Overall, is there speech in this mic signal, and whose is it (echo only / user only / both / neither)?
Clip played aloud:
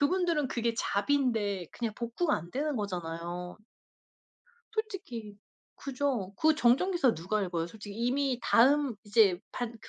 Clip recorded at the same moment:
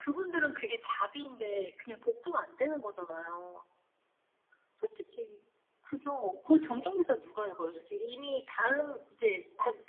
echo only